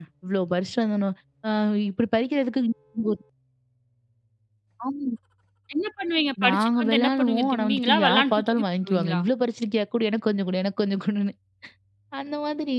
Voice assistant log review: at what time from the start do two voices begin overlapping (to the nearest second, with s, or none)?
6 s